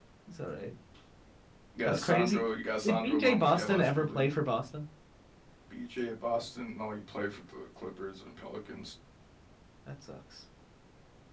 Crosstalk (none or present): present